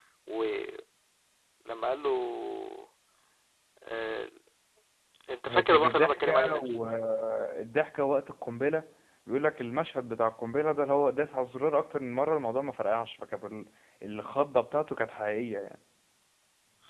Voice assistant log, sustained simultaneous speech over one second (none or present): present